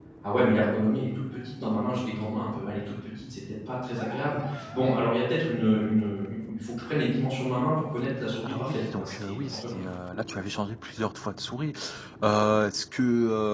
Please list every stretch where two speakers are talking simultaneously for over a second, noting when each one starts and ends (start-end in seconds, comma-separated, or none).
8.4-9.8